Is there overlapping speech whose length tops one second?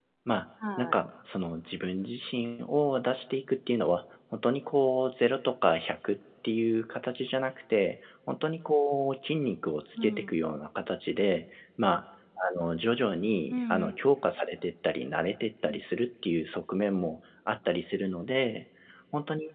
No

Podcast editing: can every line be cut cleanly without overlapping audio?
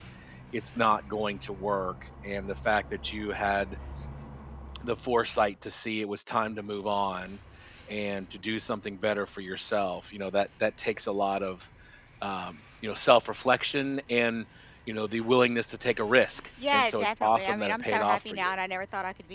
No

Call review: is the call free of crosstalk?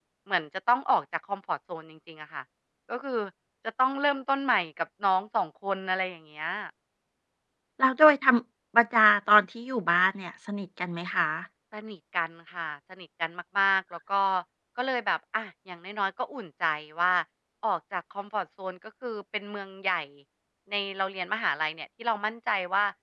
Yes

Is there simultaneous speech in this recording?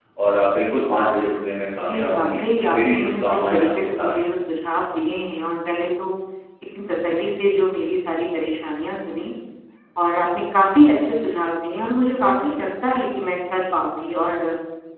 Yes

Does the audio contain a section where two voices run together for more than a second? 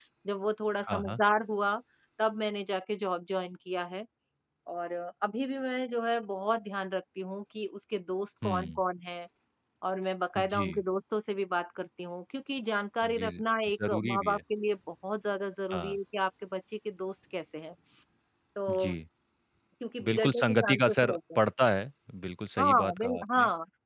Yes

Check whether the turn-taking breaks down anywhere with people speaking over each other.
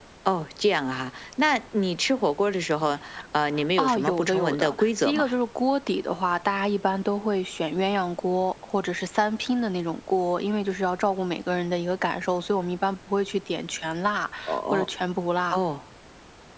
Yes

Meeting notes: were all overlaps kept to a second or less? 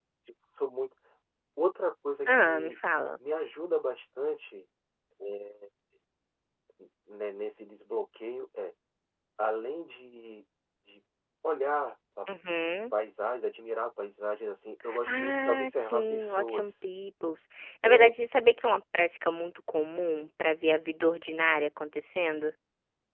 No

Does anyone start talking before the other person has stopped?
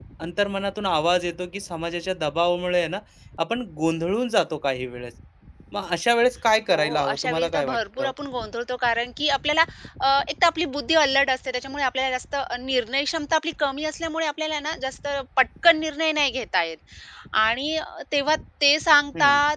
Yes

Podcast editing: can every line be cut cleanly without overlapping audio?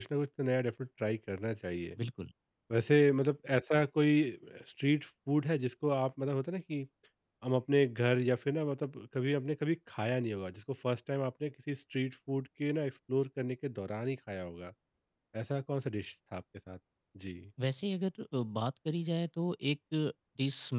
Yes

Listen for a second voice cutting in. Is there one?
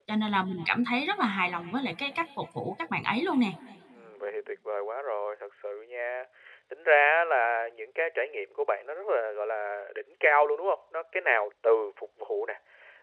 No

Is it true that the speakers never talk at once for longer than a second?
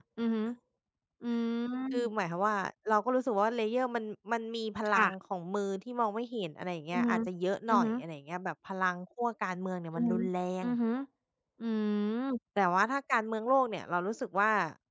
Yes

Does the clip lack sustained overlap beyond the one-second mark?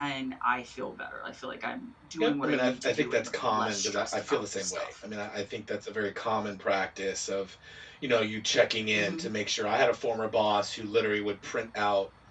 No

